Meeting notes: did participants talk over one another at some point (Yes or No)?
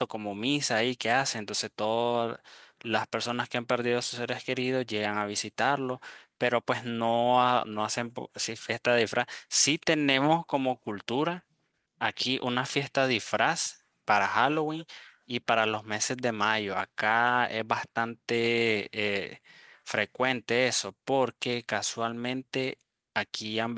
No